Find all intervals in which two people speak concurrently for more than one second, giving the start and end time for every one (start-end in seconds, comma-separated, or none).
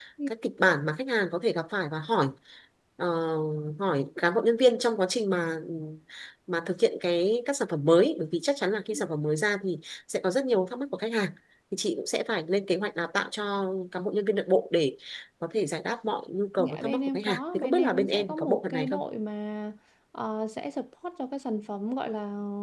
16.6-19.0